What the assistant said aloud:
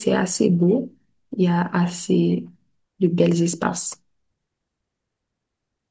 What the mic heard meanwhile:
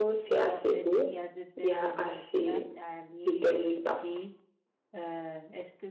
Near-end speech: present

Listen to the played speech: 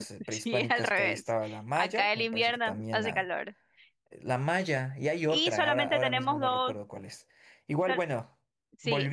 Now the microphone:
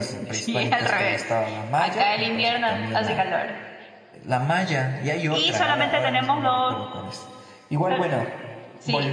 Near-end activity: none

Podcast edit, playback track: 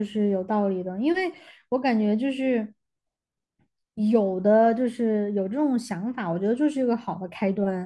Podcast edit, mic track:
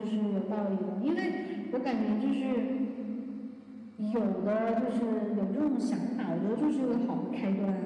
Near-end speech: none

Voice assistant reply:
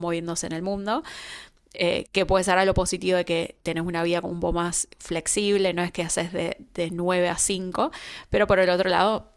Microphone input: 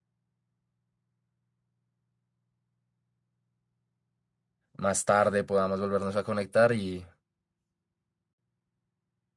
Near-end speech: present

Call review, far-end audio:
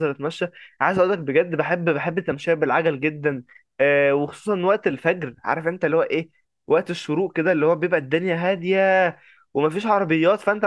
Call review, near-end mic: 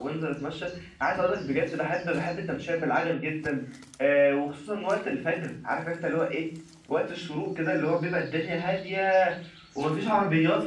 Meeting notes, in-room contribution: none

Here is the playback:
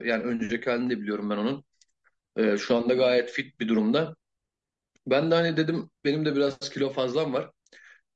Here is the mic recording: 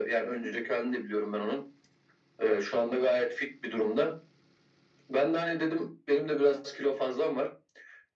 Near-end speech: none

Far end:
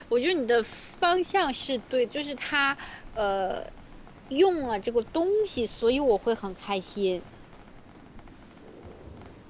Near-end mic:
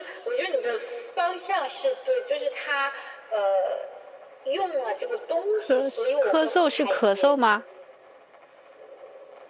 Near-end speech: present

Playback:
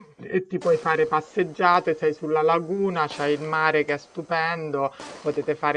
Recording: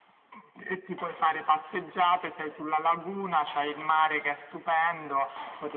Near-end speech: none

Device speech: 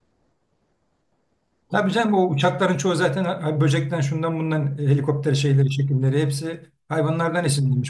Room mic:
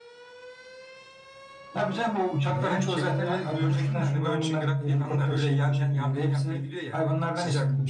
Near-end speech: present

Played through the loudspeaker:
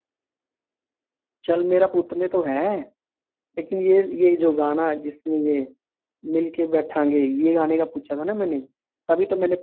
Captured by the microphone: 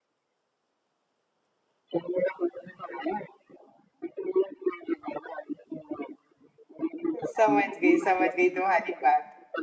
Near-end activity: present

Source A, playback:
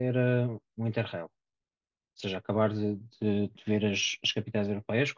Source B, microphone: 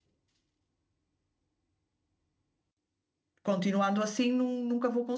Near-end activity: present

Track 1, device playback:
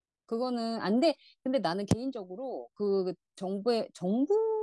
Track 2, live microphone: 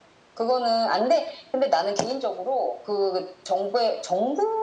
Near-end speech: none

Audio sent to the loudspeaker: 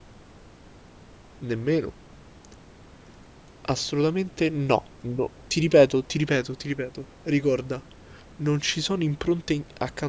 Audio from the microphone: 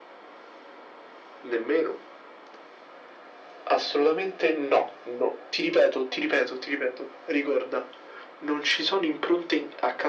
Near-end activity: none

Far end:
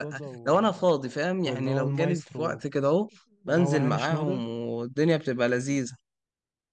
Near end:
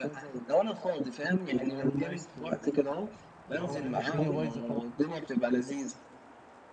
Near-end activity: present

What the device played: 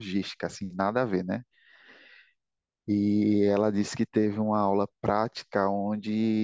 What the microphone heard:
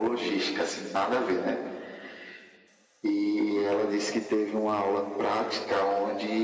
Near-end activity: none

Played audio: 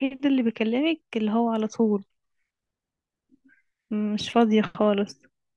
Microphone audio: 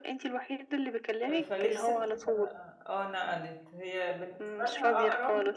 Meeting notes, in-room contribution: present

